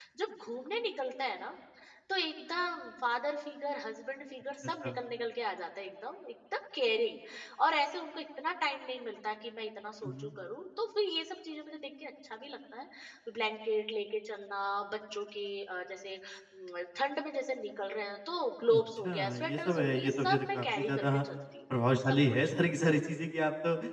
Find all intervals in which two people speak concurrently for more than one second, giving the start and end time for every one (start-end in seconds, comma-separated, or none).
18.8-21.1